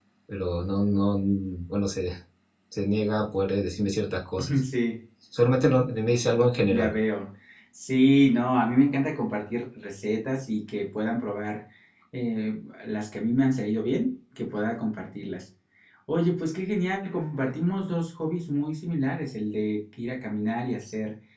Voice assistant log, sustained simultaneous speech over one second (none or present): none